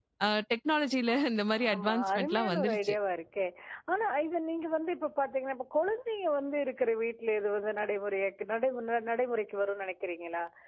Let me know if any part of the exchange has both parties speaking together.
Yes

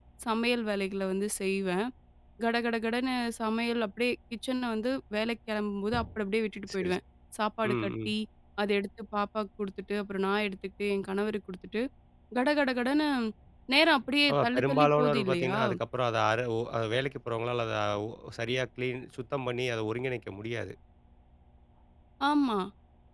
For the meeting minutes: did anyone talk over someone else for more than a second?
Yes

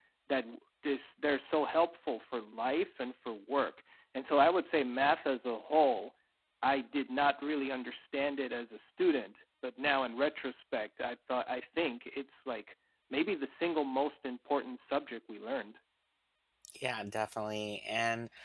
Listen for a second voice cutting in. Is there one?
No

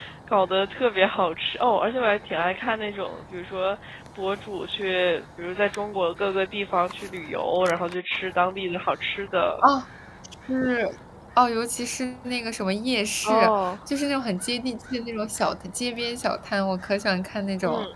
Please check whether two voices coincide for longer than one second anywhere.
No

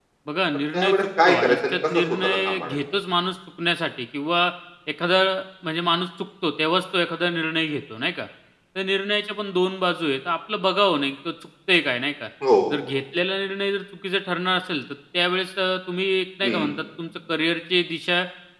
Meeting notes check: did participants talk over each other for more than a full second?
Yes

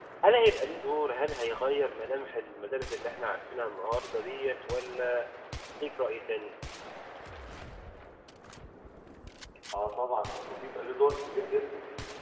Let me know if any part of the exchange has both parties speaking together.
No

